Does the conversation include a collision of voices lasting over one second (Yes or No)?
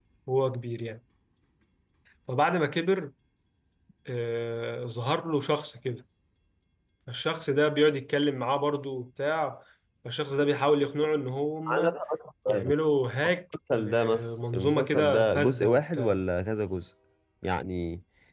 Yes